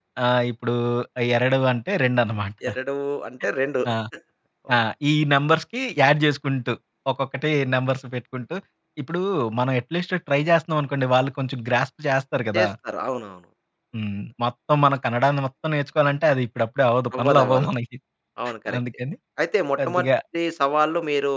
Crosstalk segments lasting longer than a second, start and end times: none

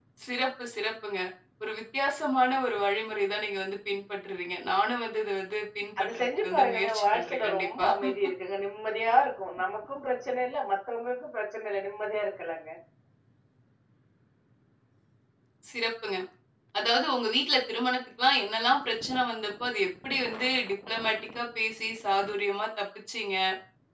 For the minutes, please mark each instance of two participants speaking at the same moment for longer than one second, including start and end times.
6.0-7.8

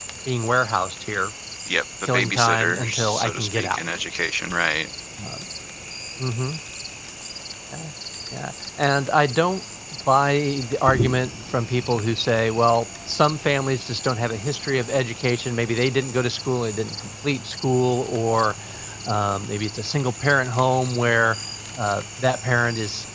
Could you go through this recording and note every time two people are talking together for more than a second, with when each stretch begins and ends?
2.0-3.8

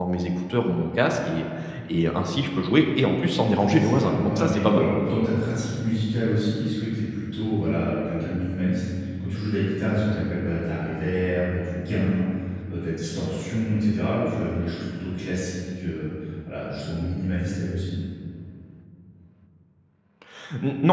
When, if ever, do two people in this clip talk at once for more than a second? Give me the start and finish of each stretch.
3.6-4.9

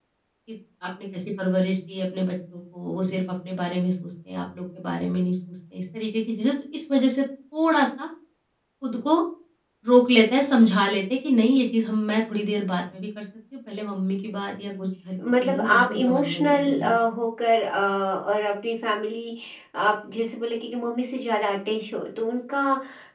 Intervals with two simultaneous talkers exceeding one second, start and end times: 15.4-16.9

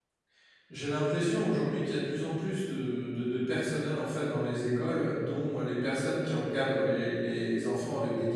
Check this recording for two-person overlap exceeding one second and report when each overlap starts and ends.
none

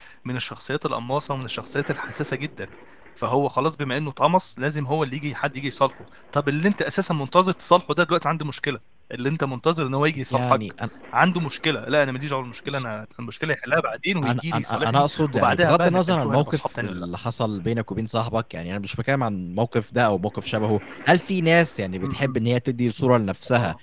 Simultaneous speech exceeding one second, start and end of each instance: 14.2-17.0

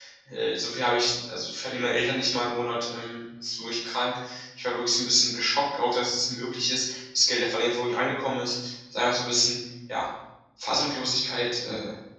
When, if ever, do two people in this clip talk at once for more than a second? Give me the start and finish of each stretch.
none

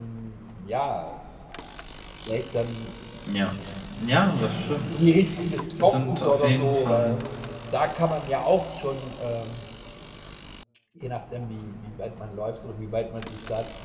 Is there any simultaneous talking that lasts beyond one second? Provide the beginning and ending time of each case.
5.8-7.2

